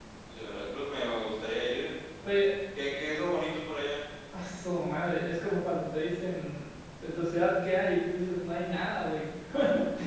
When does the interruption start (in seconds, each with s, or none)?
none